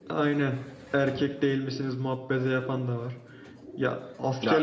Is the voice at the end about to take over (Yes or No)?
Yes